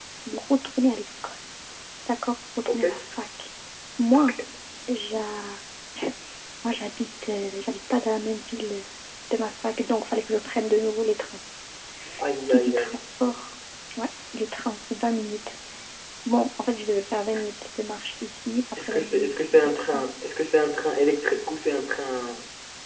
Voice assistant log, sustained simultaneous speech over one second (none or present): present